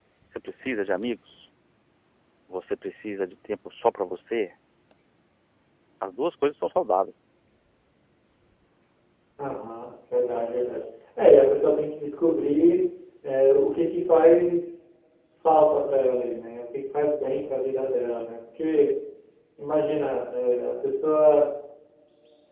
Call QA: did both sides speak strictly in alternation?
Yes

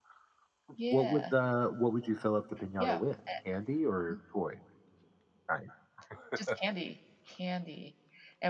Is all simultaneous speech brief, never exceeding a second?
Yes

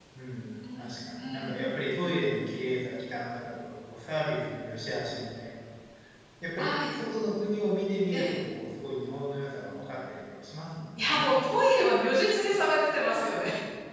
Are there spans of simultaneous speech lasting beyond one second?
No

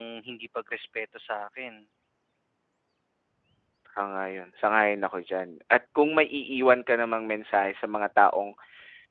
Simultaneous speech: No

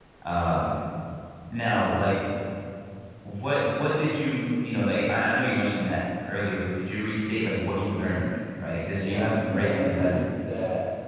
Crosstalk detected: Yes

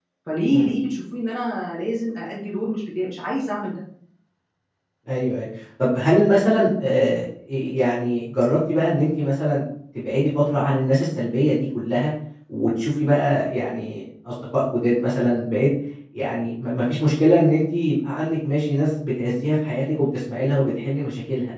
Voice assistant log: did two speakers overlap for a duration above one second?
No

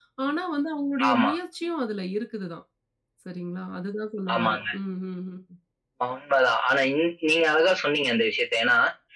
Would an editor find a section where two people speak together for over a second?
No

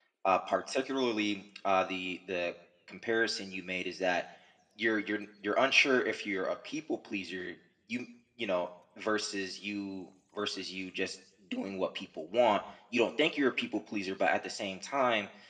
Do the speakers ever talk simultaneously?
No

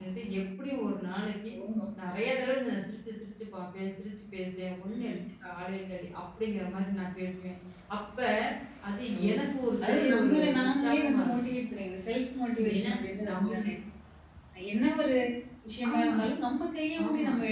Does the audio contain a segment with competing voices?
Yes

